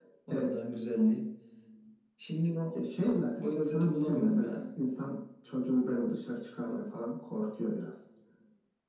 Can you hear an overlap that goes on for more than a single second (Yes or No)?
Yes